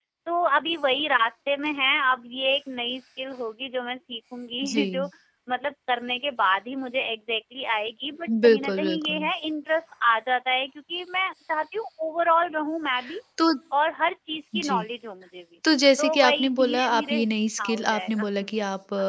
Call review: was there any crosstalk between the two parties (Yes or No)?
Yes